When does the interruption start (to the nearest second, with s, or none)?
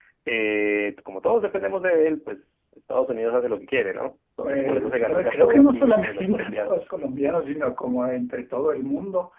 4 s